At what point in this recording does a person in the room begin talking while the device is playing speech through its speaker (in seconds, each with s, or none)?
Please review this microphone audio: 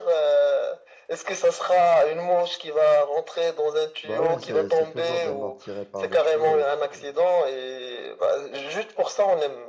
4.0 s